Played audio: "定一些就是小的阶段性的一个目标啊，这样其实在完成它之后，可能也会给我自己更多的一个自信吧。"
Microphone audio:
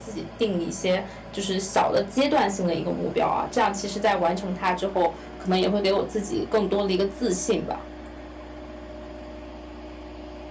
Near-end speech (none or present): none